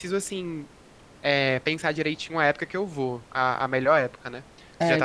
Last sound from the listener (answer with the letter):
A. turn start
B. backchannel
A